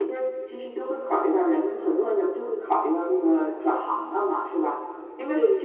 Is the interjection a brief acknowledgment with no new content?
Yes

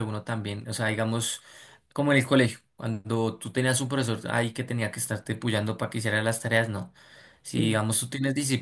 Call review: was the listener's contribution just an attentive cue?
Yes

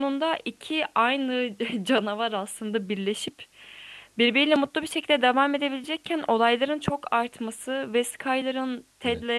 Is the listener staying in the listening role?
Yes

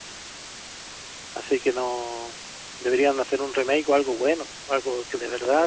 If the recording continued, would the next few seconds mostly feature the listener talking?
Yes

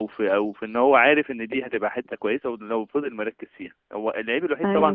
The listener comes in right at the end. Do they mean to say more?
No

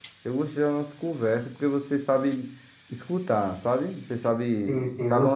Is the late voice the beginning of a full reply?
Yes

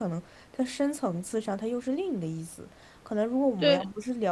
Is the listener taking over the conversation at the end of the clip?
No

